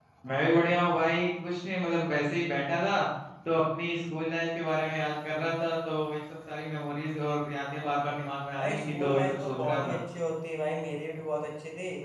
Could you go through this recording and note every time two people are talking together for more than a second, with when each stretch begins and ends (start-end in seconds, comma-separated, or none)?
8.6-10.0